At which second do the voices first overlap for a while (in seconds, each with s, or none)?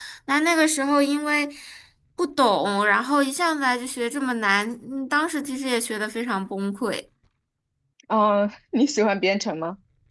none